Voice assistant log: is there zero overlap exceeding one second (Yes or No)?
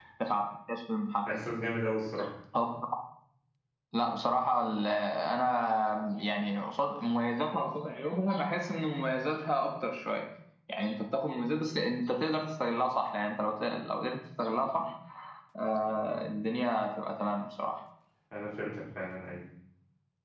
Yes